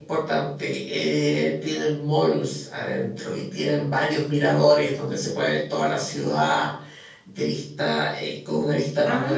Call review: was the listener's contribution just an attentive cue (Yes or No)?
No